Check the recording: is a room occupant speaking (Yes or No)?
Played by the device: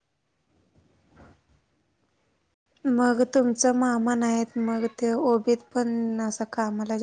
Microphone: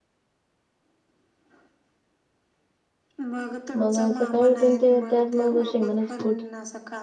Yes